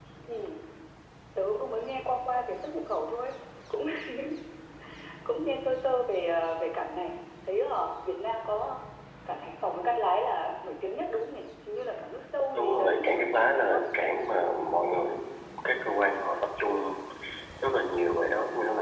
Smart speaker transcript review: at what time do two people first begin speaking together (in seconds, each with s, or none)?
12.5 s